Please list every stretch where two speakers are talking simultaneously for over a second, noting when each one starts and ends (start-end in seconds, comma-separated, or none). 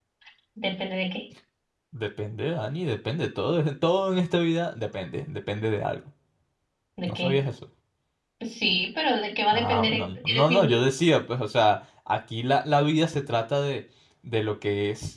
9.5-10.8